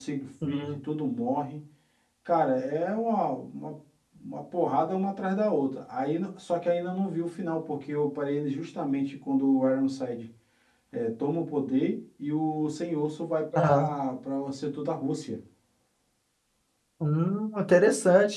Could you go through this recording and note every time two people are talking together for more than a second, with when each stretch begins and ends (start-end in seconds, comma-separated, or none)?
none